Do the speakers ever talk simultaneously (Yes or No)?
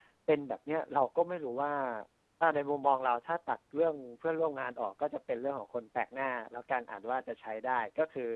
No